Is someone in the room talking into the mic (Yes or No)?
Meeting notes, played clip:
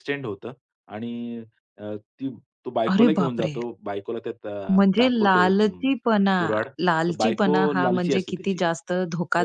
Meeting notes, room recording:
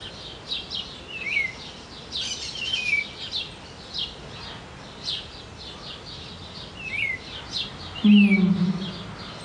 Yes